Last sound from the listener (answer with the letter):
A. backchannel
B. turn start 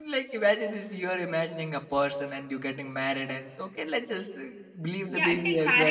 B